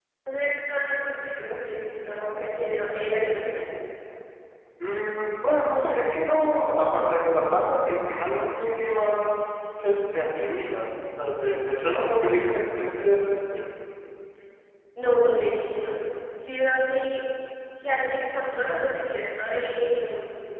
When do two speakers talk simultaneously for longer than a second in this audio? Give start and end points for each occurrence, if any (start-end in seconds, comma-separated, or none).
none